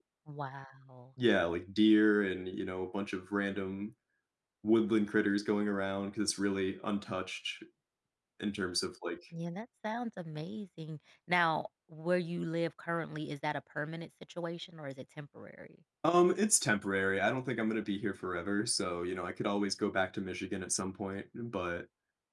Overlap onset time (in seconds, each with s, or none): none